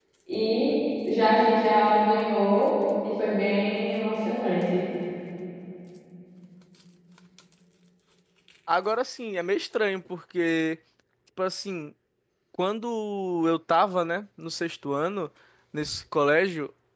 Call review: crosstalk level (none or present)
none